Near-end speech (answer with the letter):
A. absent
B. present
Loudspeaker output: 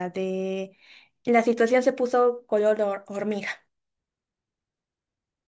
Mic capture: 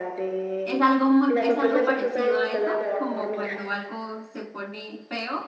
B